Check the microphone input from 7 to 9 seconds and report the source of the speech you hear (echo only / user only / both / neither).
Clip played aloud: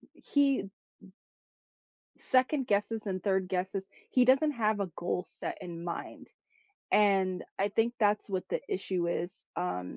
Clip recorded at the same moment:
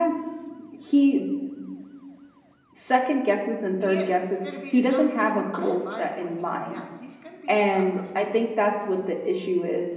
both